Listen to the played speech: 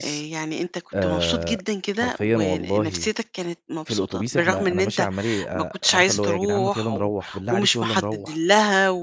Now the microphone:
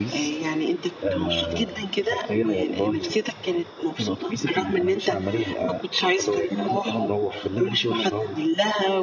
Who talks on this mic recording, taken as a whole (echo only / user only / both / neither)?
echo only